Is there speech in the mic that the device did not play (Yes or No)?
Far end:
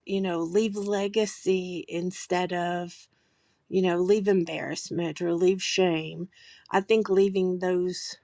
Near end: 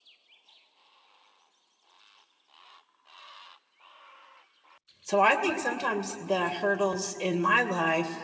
Yes